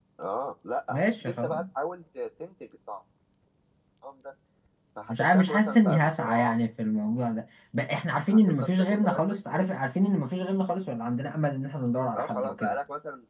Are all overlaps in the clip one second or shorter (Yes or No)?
No